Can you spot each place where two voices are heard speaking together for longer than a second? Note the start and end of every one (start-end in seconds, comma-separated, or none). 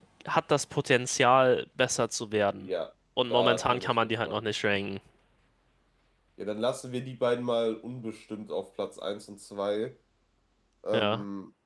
3.2-4.4